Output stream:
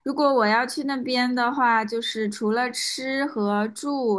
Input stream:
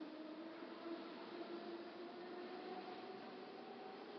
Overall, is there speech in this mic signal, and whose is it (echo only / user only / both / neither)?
neither